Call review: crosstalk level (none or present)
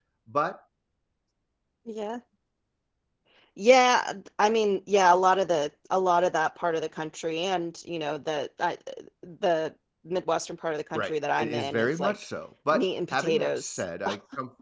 present